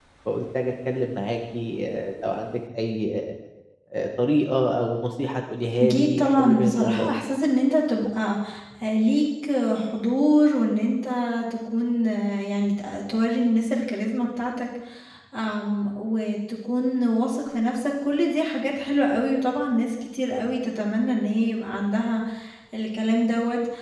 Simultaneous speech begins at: 5.8 s

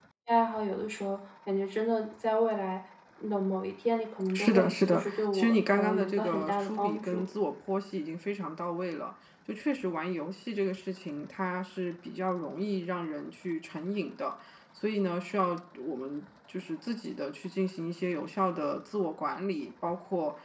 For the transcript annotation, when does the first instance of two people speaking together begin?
4.2 s

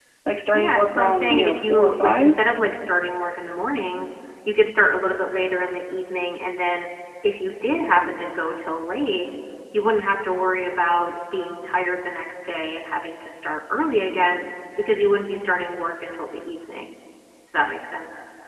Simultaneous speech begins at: 0.5 s

